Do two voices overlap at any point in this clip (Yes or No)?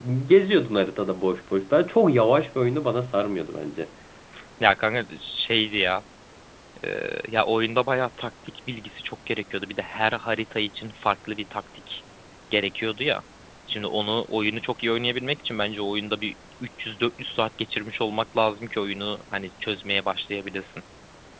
No